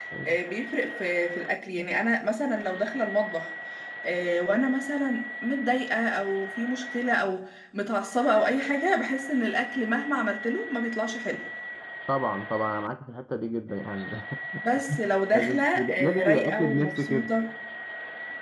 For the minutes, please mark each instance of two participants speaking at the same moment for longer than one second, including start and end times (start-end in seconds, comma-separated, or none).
15.3-17.3